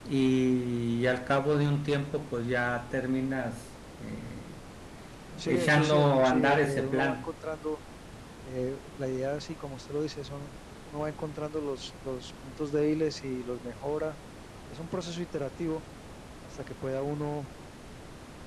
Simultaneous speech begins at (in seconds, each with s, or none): 5.4 s